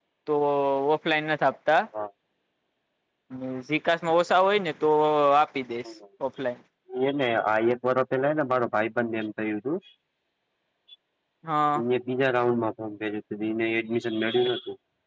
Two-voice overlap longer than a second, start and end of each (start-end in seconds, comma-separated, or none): none